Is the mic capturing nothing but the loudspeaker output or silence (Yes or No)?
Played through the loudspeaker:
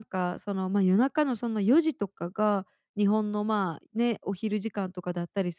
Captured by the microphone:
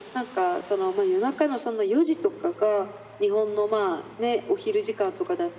Yes